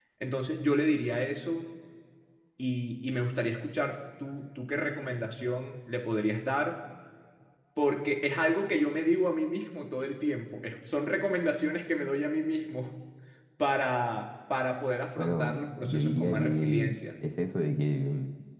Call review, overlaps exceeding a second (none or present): present